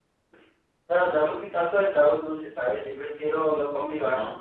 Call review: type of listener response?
listening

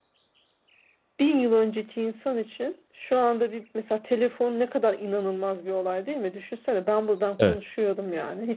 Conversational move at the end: listening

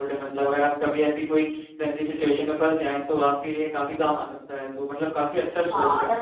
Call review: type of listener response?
taking over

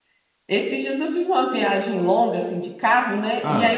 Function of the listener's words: listening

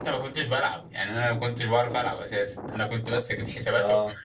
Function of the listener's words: listening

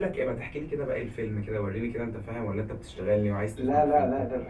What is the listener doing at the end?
taking over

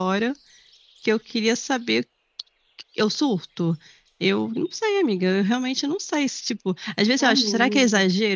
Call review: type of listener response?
listening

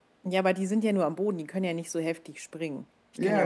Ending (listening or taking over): taking over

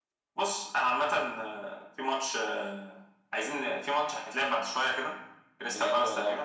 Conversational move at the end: listening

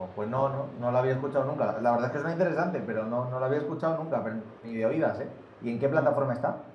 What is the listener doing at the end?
taking over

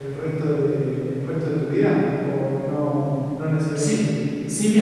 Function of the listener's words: taking over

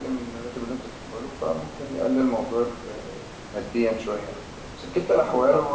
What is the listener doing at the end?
listening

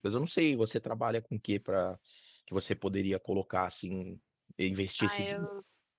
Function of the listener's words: taking over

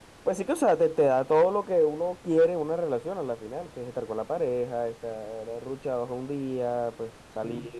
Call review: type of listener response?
listening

